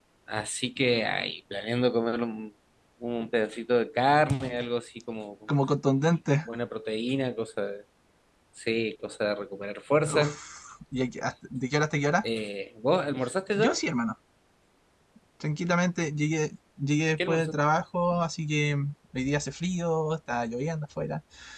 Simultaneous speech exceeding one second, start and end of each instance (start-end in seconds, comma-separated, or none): none